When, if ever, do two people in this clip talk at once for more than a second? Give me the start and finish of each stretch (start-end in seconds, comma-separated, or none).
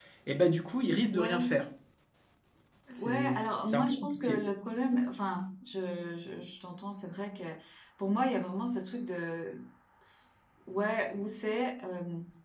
3.0-4.4